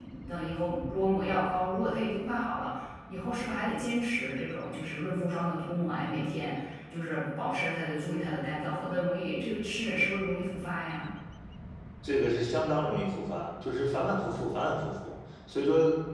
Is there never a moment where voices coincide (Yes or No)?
Yes